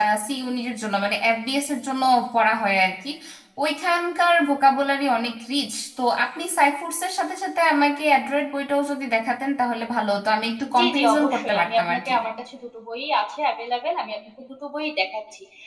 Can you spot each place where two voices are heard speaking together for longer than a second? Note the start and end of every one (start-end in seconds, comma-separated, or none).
10.8-12.1